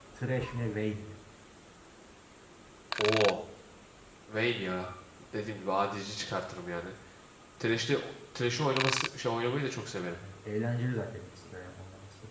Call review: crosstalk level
none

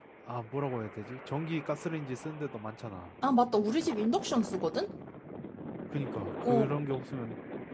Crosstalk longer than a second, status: none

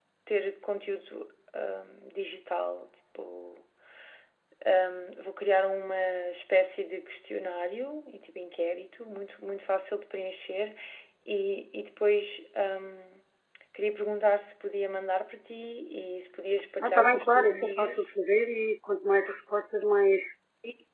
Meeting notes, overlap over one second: present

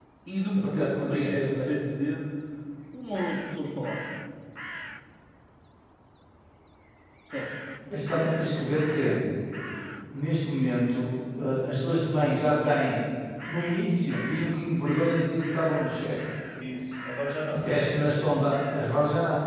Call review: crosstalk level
present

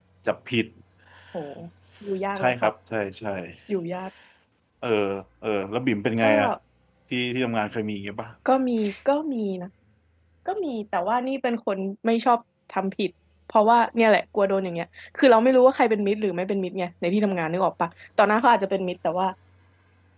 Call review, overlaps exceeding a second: none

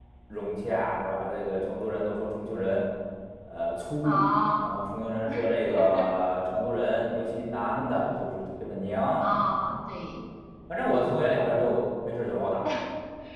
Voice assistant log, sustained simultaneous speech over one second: none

